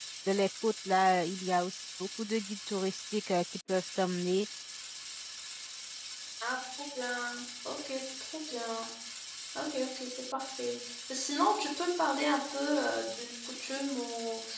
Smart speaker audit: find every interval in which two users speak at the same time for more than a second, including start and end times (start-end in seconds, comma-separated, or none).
none